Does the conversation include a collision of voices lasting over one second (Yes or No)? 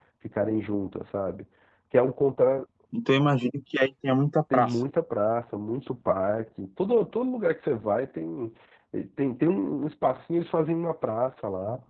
No